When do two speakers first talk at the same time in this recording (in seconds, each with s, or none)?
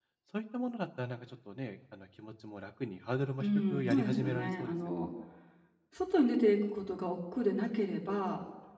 3.4 s